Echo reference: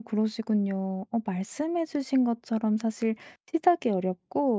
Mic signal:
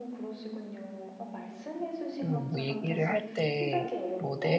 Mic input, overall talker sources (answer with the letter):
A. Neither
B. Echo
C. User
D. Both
D